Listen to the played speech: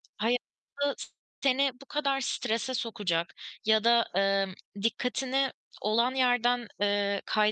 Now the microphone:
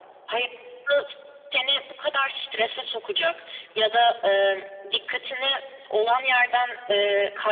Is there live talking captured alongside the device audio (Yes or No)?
No